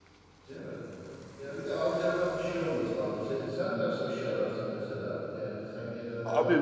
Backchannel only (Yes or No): No